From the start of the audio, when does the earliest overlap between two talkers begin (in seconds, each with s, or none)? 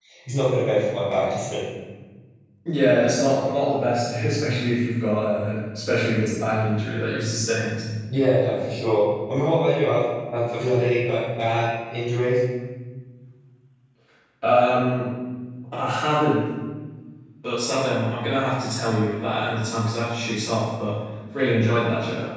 none